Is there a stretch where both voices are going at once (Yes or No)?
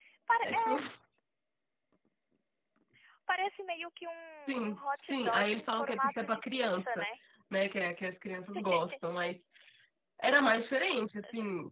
Yes